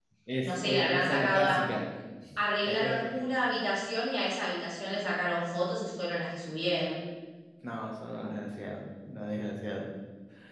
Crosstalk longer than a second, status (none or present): present